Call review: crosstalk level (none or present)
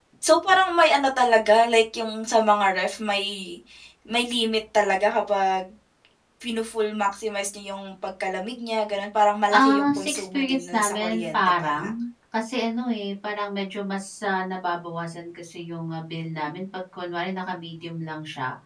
present